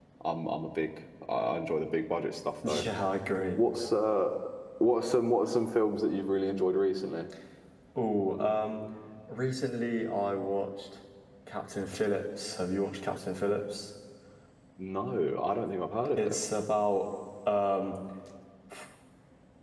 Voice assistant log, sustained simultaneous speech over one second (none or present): none